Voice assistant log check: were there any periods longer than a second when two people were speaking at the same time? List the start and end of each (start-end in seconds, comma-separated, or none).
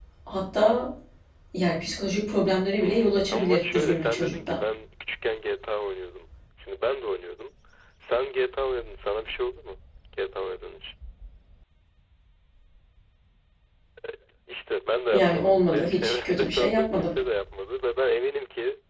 2.8-4.6, 15.1-17.1